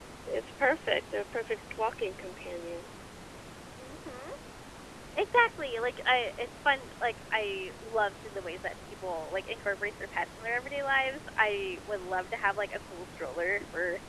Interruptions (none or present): none